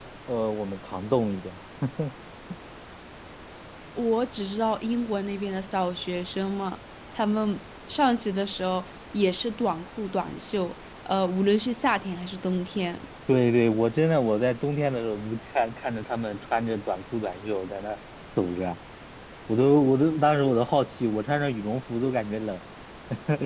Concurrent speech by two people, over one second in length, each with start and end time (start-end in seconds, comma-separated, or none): none